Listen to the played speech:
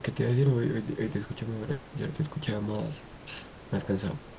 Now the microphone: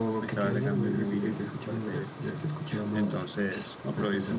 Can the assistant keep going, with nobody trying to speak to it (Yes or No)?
No